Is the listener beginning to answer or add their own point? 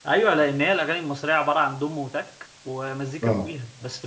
No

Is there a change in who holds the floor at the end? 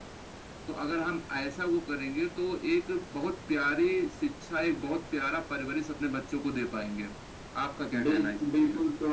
Yes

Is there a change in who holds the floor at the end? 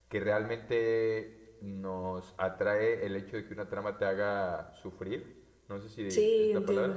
No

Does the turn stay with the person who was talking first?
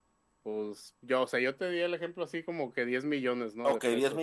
No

